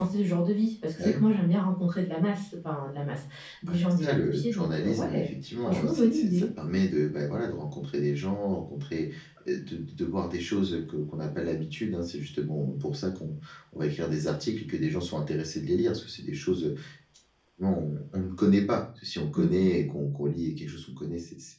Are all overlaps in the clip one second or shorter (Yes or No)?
No